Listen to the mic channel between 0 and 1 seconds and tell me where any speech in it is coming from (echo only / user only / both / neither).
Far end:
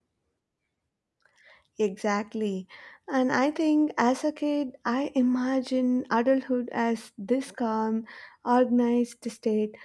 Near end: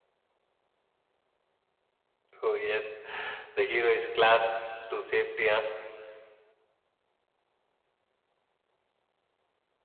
neither